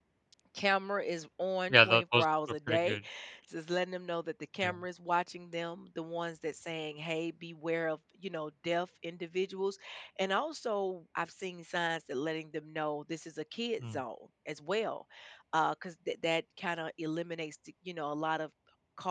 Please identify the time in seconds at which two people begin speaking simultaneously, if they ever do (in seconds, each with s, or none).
1.7 s